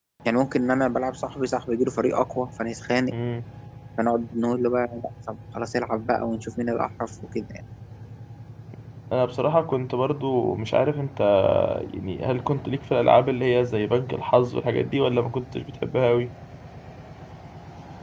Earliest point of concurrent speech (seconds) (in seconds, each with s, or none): none